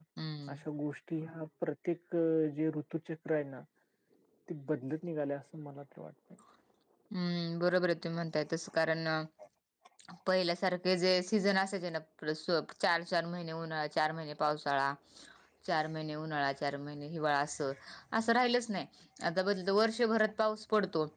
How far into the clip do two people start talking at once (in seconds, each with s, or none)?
none